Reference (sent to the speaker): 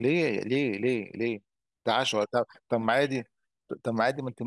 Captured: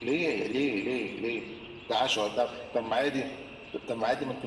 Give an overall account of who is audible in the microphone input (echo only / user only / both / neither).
echo only